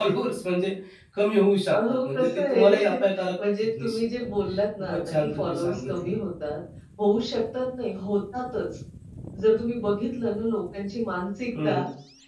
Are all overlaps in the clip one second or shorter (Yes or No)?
No